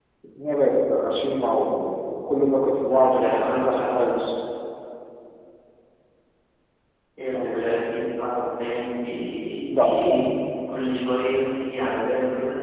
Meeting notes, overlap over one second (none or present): present